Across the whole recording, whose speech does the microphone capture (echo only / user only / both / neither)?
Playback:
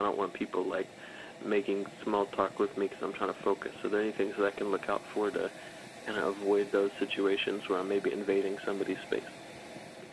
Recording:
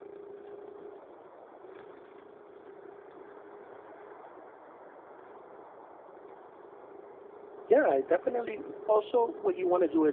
user only